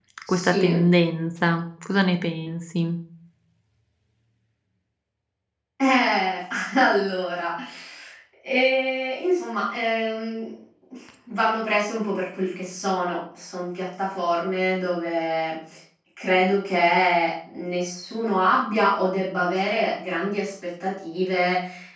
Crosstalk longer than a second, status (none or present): none